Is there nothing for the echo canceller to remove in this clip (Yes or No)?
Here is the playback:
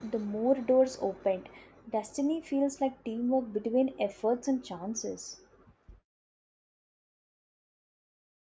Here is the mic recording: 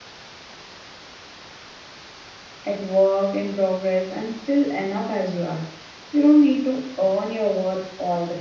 Yes